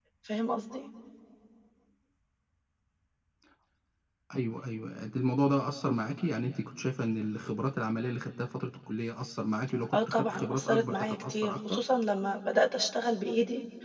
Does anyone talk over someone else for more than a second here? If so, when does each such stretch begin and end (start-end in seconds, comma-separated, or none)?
9.9-11.8